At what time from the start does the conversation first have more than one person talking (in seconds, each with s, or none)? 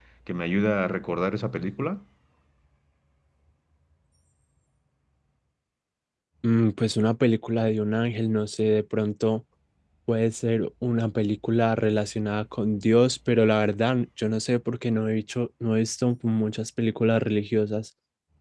none